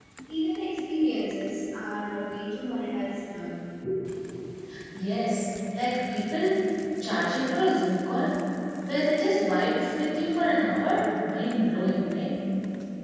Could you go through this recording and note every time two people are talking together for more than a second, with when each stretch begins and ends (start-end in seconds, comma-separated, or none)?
none